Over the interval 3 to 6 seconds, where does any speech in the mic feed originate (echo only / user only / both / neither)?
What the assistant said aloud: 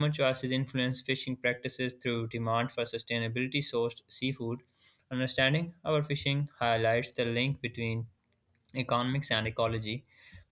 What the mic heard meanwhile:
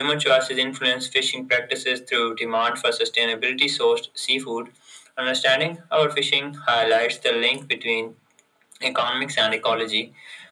echo only